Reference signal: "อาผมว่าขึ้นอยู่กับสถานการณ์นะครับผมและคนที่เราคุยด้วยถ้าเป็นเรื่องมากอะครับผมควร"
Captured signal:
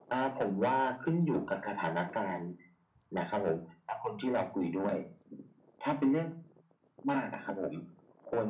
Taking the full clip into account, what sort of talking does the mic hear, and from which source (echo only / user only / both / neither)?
echo only